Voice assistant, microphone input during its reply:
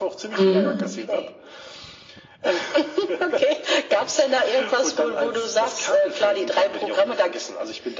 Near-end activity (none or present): present